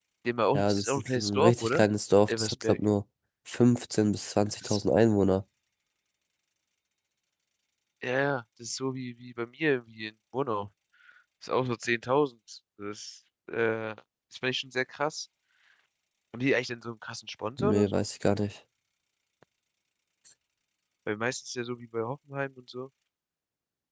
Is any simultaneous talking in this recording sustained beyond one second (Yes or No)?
Yes